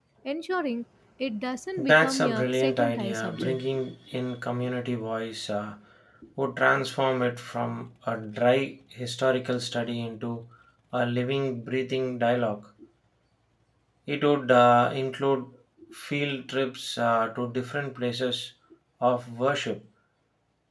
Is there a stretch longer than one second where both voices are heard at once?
Yes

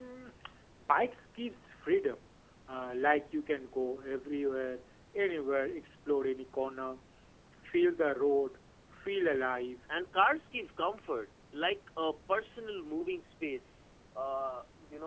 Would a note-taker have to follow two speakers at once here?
No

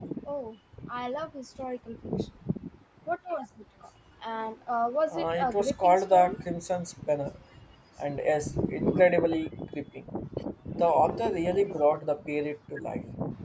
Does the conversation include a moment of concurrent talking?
Yes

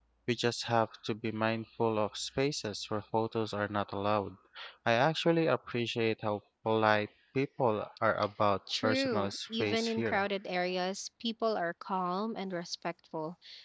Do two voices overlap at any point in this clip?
Yes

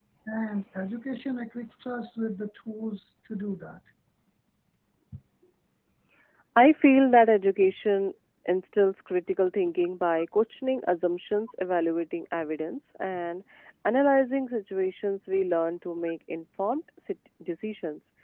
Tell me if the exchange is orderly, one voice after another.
Yes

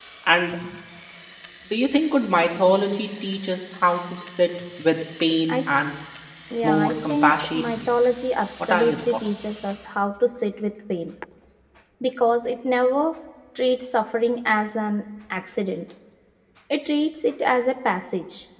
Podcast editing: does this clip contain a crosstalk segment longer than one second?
Yes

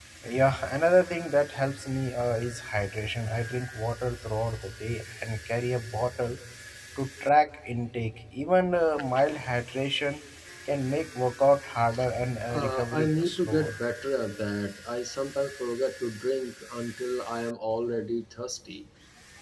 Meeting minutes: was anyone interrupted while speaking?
Yes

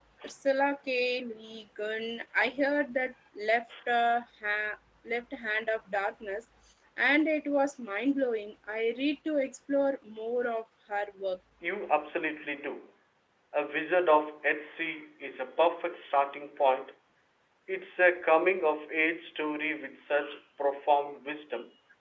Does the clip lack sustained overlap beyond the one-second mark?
Yes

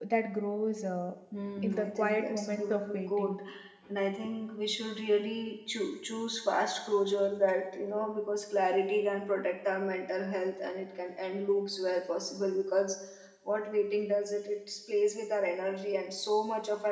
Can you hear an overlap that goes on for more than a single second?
Yes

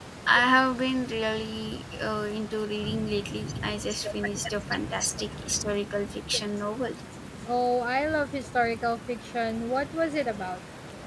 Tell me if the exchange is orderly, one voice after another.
Yes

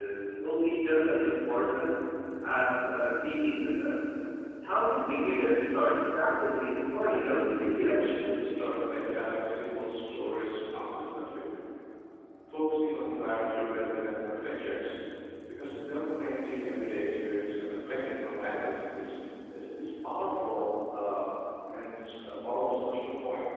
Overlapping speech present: Yes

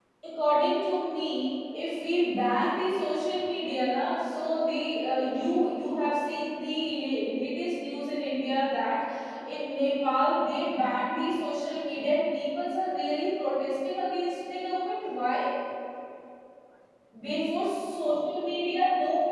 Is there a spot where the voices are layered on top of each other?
No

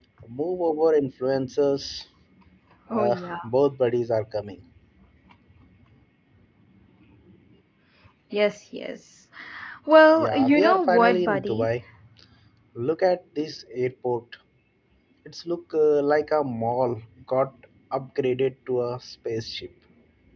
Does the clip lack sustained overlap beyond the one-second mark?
No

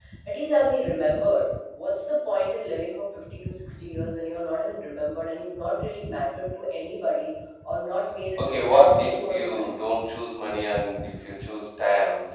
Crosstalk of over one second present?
Yes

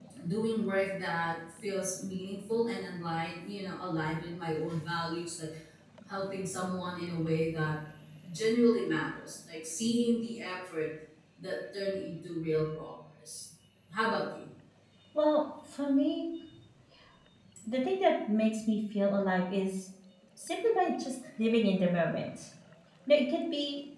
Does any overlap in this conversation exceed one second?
No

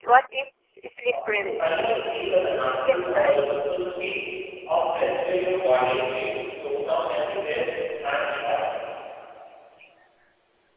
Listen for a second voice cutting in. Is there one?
Yes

